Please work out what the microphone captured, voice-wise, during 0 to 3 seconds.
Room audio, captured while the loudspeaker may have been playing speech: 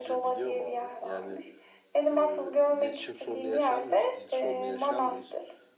both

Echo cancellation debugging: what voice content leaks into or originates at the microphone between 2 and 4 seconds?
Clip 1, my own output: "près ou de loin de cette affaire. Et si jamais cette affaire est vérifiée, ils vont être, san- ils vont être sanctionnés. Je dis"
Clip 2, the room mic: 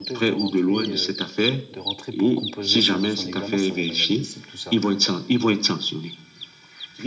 both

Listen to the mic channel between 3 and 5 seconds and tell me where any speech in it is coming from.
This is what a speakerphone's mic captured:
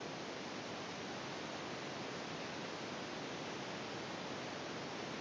neither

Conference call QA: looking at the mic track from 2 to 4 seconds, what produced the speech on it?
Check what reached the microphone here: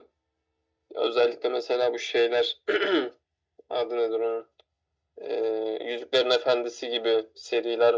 echo only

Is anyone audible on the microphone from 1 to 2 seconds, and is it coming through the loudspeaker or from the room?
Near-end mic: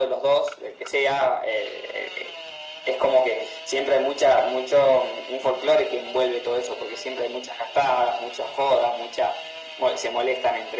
echo only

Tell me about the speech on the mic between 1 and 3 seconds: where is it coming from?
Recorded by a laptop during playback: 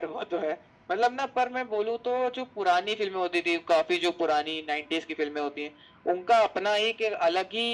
echo only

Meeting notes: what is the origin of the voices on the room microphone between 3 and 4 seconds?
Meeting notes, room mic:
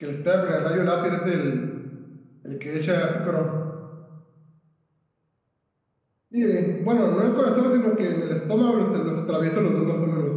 echo only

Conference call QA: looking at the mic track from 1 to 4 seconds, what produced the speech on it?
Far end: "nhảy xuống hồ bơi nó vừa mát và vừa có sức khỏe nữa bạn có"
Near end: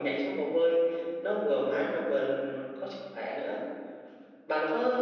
echo only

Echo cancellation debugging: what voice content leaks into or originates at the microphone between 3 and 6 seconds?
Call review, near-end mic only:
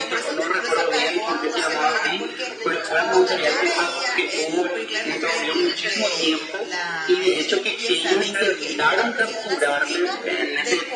both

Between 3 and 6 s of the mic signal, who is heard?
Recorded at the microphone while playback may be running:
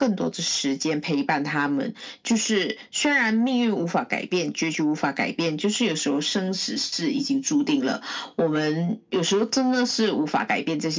echo only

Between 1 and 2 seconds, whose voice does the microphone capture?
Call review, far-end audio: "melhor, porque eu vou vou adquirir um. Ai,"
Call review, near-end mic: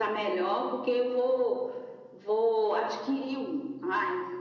echo only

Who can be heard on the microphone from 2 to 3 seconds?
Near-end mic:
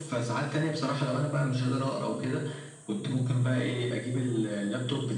echo only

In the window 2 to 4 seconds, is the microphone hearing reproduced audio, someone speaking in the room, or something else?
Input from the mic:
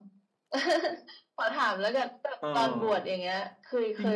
both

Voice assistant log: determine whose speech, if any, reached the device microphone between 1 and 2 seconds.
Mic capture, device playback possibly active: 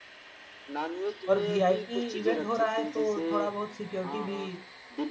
both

